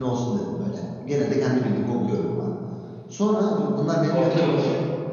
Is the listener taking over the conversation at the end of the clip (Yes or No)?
No